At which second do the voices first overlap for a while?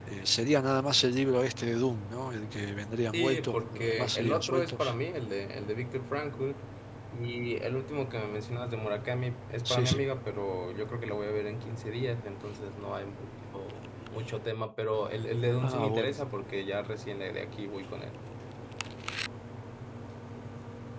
3.1 s

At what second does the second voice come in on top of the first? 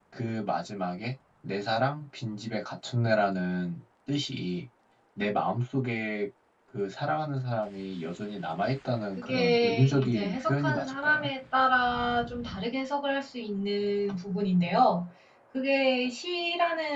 9.2 s

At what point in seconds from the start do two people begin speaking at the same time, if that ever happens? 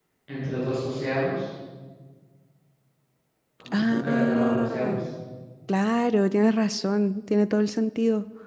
3.7 s

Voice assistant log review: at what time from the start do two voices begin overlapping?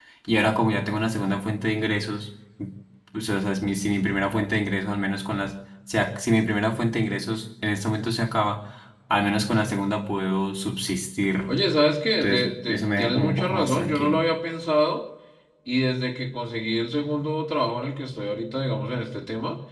12.2 s

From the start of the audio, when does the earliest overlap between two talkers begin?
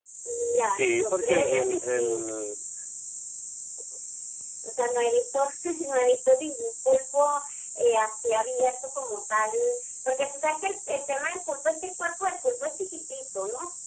0.7 s

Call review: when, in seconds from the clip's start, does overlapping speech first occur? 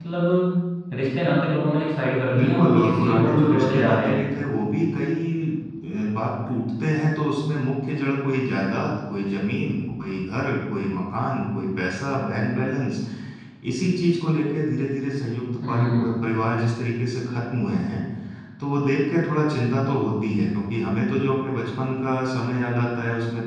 2.4 s

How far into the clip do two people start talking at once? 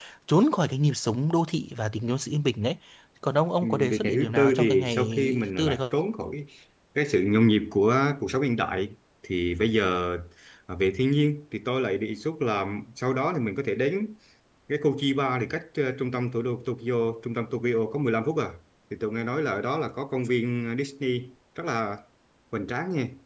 3.6 s

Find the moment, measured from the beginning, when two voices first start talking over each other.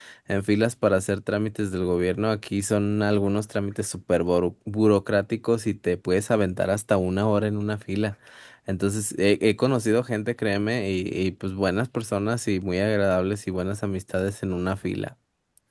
none

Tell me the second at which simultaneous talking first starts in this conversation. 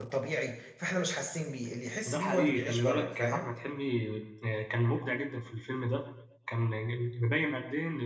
2.1 s

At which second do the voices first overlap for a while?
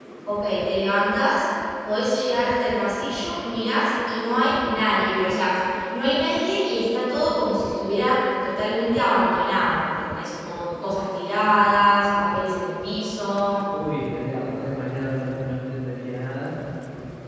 none

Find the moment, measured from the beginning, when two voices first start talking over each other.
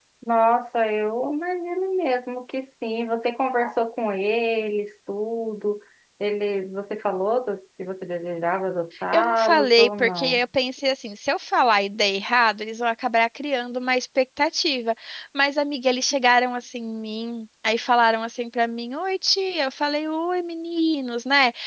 9.1 s

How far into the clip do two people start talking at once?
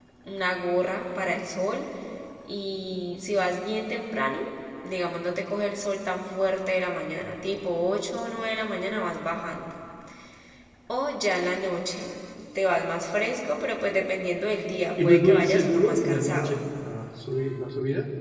15.0 s

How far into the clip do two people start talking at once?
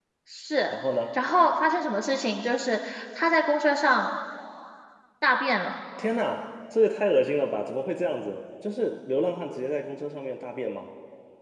none

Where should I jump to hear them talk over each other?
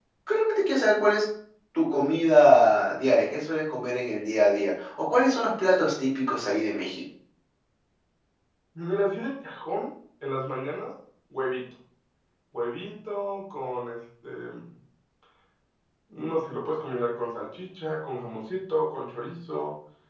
none

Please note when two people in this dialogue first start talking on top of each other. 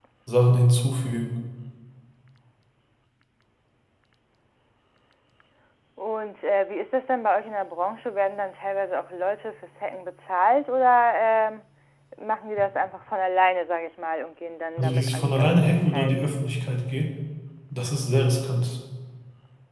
14.8 s

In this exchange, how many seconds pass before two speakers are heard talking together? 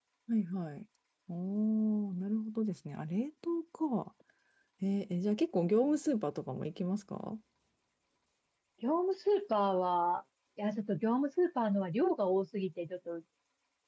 none

